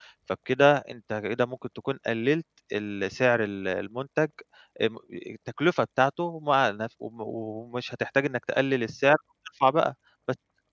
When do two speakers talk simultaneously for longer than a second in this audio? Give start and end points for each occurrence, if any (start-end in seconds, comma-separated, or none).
none